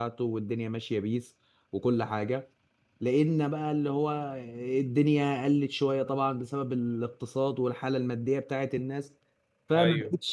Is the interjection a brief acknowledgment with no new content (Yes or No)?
Yes